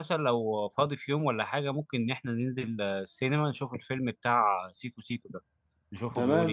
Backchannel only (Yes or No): No